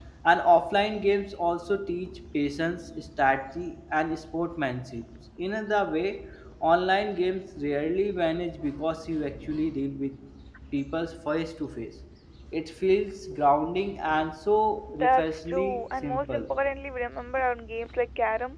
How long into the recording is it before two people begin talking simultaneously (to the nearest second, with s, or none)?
15 s